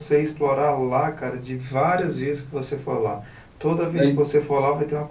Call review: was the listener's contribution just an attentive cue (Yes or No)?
Yes